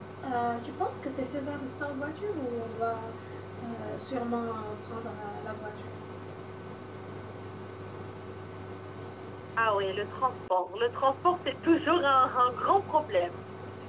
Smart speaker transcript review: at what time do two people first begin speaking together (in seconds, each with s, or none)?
none